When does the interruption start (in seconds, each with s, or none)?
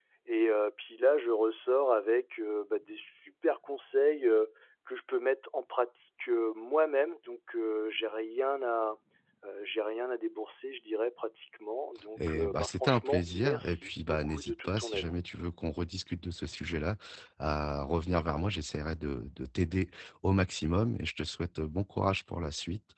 12.2 s